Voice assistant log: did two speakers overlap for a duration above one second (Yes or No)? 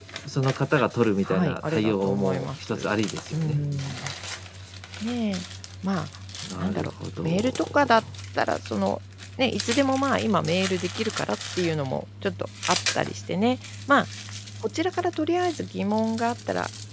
Yes